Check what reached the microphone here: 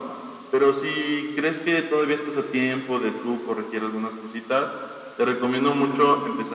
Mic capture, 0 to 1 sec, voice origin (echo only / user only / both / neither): echo only